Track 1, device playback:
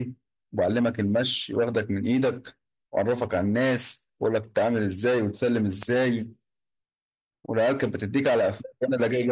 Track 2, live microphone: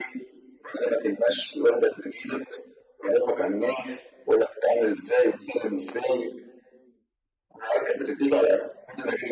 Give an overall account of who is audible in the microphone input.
echo only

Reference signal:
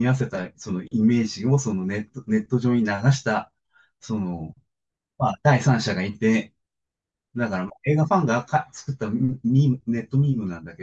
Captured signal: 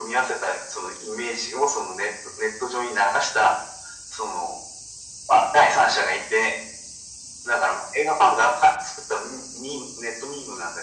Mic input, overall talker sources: echo only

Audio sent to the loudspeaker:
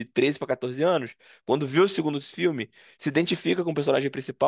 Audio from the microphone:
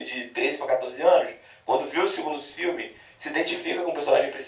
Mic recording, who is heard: echo only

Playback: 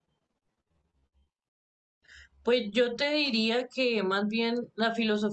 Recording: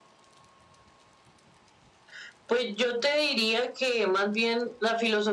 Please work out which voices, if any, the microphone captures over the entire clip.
echo only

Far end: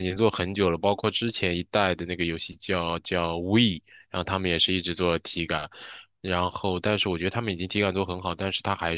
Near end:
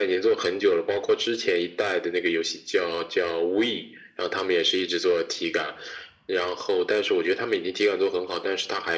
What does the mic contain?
echo only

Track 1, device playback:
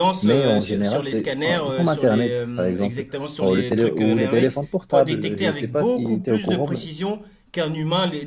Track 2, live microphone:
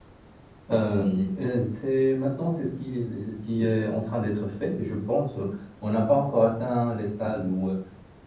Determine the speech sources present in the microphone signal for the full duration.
user only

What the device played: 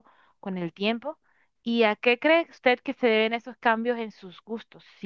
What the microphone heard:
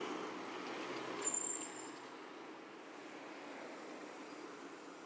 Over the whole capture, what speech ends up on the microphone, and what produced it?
neither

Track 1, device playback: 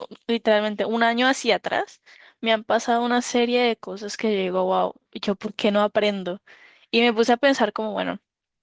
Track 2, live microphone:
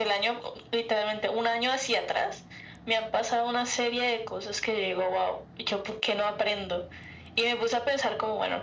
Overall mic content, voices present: echo only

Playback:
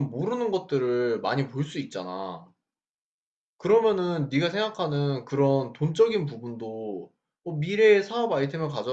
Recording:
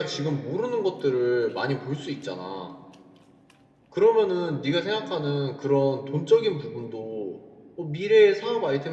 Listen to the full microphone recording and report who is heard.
echo only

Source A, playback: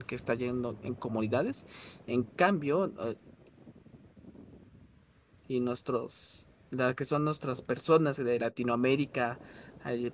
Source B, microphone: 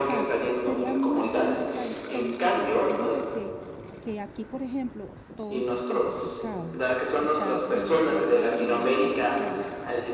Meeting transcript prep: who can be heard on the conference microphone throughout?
both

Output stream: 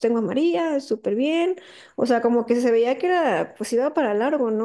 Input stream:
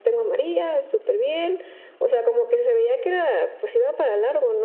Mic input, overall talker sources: echo only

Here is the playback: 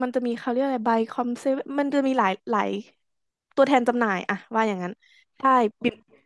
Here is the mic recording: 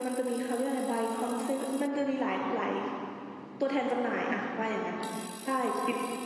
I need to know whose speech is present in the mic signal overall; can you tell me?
echo only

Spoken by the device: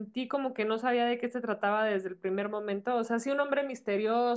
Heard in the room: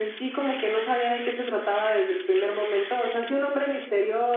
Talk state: echo only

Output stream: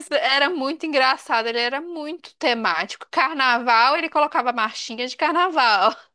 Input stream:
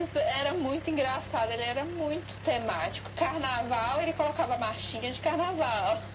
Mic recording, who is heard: echo only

